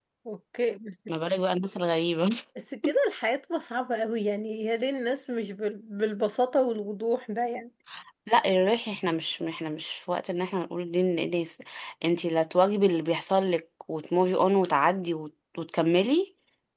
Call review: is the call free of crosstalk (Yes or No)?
Yes